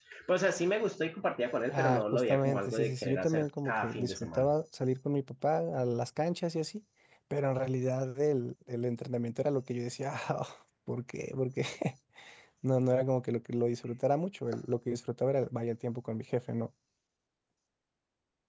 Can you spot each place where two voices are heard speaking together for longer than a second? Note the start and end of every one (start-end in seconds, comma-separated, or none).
1.7-4.5